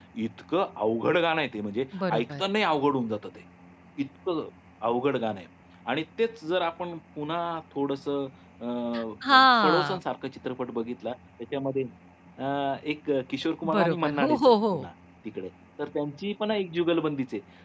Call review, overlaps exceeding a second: present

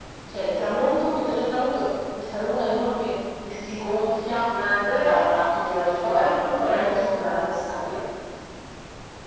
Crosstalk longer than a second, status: present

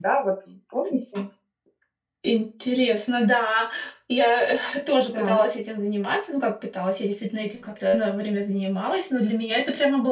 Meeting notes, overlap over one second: none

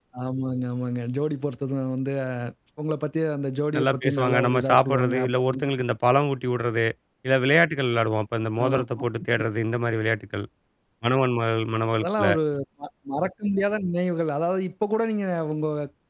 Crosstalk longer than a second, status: present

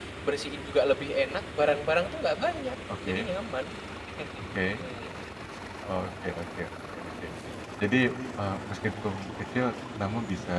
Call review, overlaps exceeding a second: none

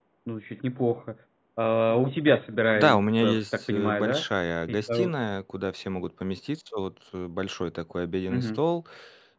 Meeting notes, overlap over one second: present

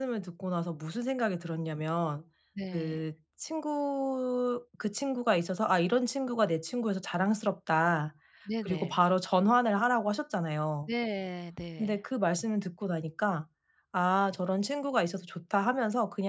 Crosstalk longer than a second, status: none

